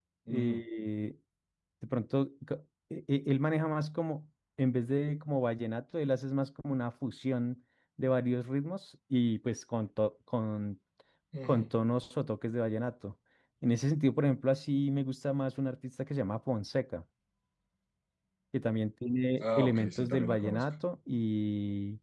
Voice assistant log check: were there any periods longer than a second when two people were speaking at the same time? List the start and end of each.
19.4-20.6

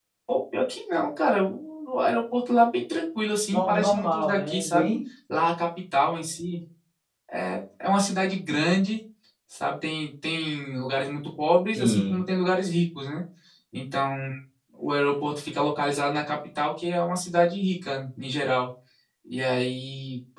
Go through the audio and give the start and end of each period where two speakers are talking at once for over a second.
3.5-4.9

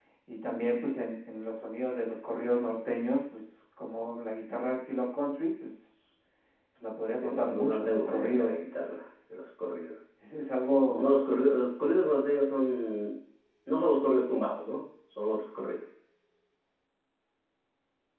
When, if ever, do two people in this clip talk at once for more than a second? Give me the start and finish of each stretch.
7.1-8.6

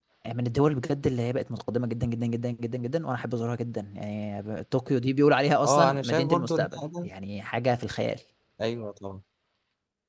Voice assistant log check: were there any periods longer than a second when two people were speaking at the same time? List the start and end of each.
5.6-7.1

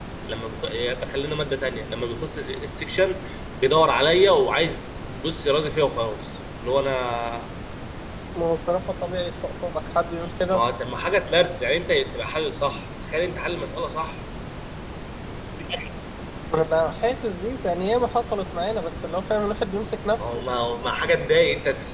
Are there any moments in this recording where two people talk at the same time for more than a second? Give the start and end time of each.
none

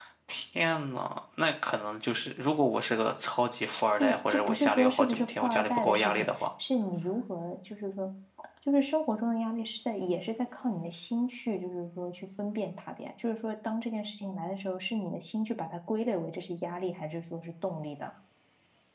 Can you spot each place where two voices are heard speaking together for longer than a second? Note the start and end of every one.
4.0-6.3

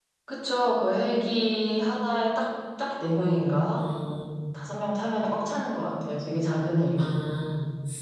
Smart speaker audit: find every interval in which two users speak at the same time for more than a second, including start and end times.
none

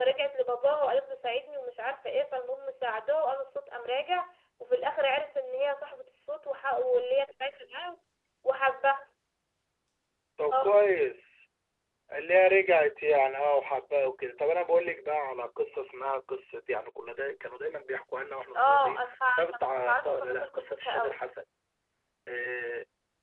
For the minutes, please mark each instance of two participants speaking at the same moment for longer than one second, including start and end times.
18.5-21.2

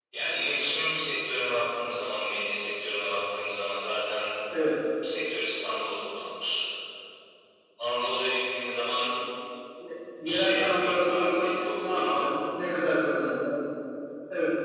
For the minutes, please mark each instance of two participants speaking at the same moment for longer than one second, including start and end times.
10.2-12.3

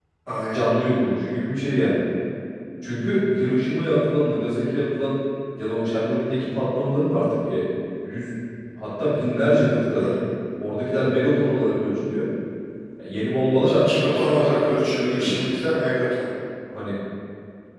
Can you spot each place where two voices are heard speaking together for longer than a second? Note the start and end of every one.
13.6-15.6

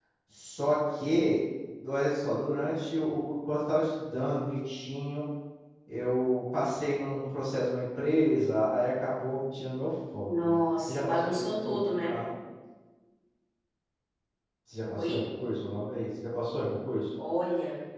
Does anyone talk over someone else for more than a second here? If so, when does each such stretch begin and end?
10.2-12.1

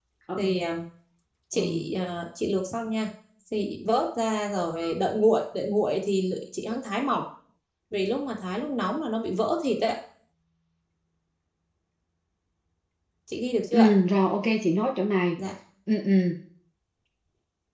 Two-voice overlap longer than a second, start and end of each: none

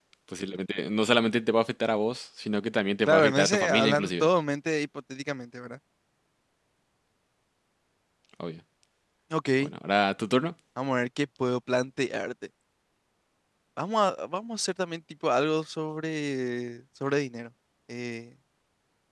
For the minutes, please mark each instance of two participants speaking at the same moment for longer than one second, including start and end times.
3.1-4.3

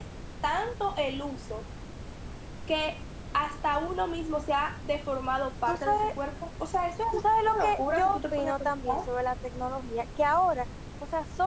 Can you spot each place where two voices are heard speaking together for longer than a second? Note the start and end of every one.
7.5-9.0

